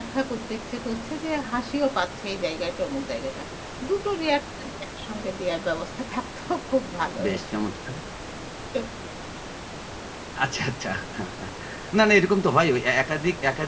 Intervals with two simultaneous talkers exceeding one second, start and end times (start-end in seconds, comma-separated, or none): none